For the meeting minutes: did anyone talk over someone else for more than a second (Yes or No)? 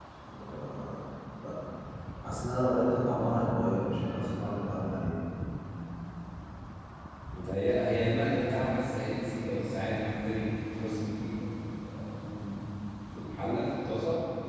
No